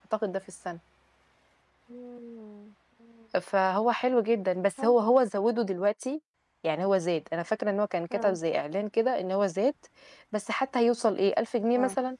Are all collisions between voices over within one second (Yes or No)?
Yes